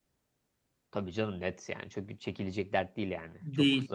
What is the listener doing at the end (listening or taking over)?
taking over